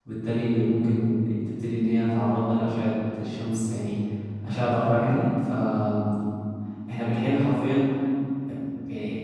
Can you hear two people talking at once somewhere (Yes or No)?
No